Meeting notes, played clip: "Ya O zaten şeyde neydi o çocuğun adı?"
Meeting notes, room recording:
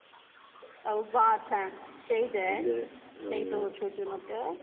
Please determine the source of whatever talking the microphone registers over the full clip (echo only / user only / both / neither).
both